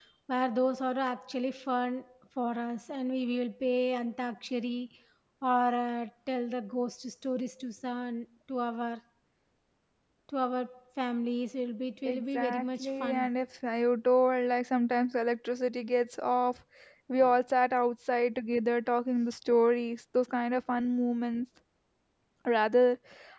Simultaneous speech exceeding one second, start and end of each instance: 12.1-13.3

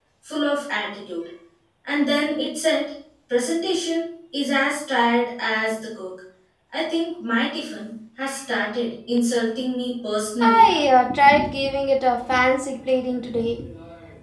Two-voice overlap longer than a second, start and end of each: none

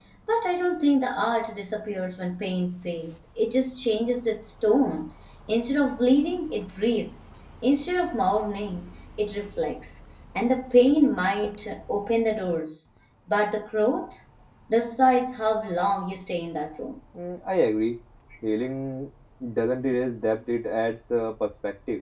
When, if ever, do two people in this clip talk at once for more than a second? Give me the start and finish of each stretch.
none

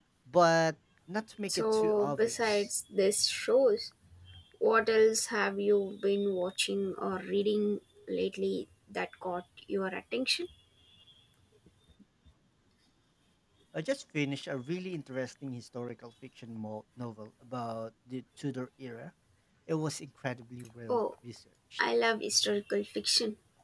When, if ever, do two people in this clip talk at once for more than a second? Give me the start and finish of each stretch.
1.5-2.7

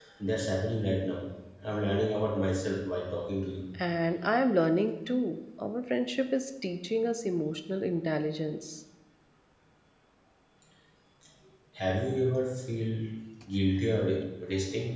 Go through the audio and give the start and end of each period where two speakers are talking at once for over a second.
none

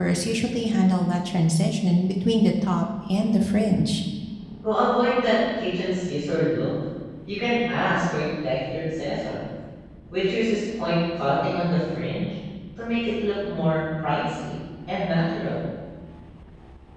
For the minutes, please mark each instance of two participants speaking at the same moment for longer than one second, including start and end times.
none

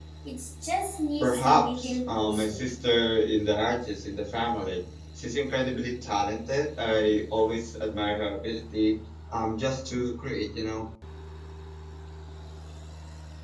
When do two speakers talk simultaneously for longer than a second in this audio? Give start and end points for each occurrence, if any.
1.2-2.7

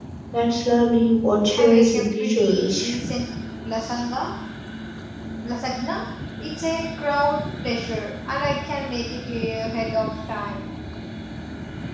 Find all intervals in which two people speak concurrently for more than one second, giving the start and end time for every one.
1.6-3.0

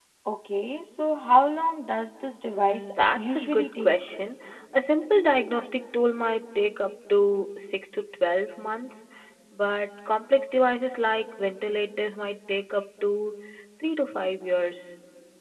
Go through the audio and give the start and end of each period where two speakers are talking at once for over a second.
2.5-4.0

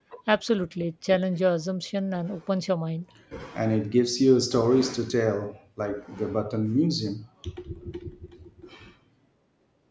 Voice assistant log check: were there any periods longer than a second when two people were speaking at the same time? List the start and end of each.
none

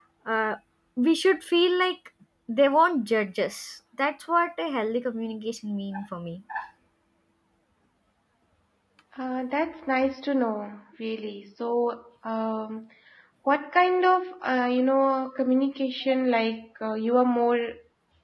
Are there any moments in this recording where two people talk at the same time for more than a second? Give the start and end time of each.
none

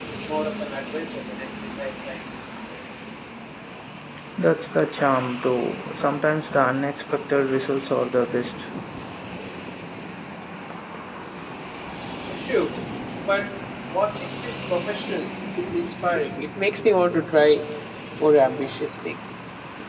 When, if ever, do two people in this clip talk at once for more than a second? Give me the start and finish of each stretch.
none

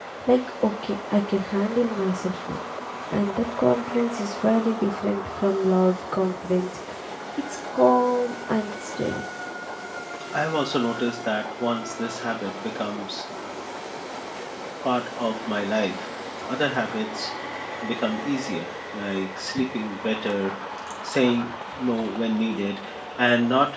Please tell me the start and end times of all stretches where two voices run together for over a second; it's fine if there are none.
none

